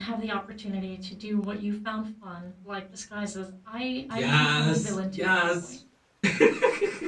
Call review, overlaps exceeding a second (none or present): present